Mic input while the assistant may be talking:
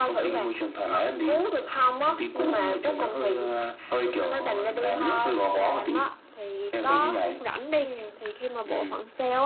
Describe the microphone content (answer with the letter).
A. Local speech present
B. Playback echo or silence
A